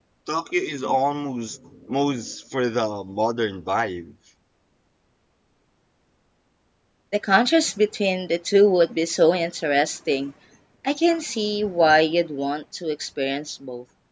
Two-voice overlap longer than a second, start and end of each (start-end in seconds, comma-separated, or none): none